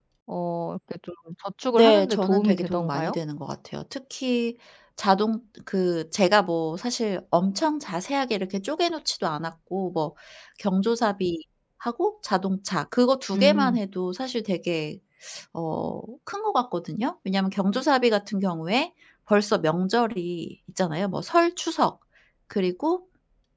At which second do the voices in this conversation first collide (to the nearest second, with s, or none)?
2 s